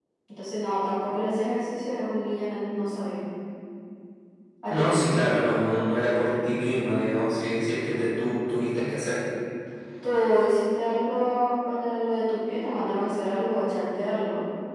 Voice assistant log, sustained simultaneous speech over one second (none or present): none